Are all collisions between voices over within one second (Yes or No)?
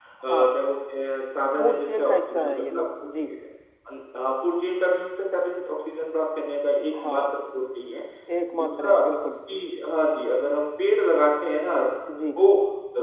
No